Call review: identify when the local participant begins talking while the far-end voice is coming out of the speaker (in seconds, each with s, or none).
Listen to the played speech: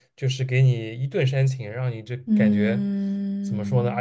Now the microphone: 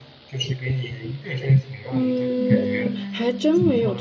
1.9 s